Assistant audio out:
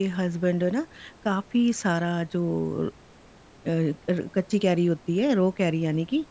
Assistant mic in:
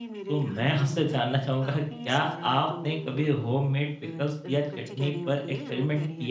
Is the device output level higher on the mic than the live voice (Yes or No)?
No